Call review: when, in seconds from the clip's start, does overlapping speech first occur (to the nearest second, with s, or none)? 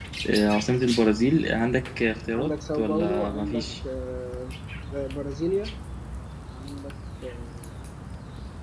2 s